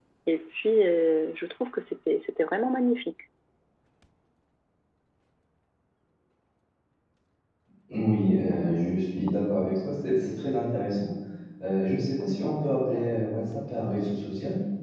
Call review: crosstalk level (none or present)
none